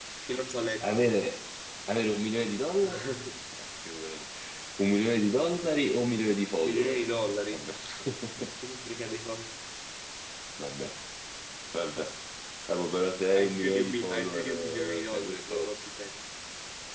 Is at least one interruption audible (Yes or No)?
Yes